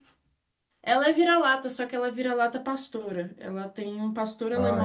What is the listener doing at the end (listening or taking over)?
taking over